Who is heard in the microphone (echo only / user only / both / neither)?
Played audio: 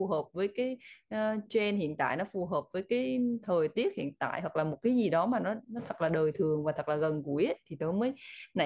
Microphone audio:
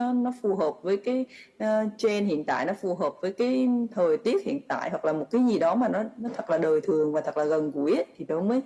echo only